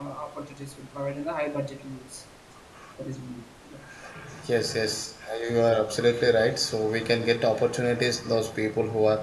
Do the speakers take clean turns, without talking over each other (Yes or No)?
Yes